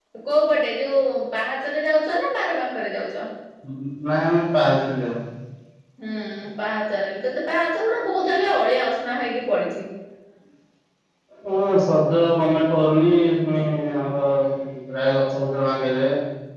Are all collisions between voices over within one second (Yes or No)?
Yes